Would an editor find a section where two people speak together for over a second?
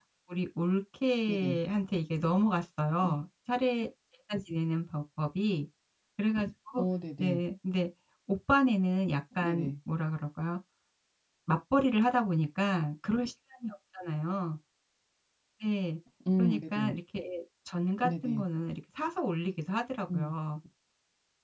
No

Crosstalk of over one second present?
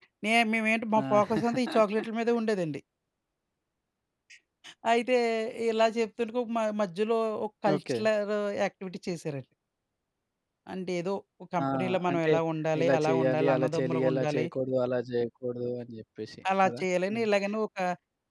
Yes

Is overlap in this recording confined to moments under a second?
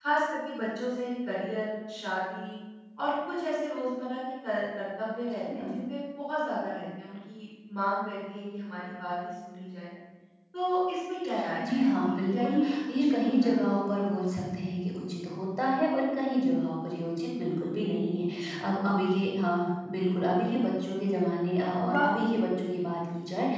No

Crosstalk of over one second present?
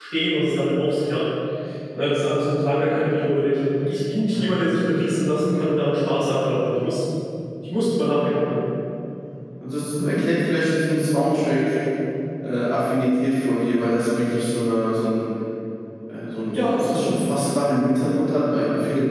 No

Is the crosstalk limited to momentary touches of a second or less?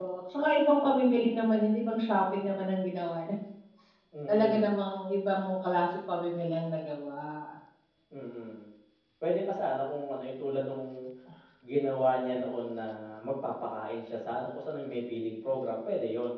Yes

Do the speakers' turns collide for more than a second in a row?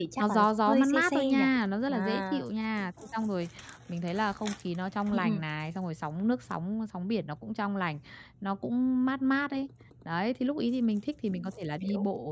Yes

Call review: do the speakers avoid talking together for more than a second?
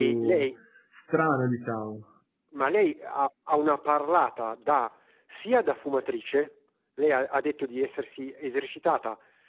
Yes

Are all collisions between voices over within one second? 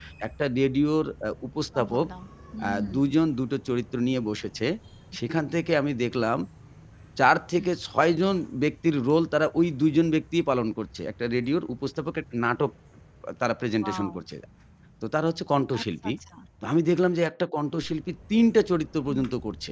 Yes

